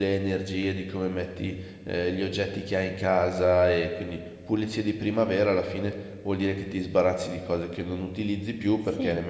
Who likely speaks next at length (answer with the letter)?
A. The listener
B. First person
B